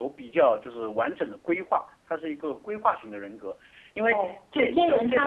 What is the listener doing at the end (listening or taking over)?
taking over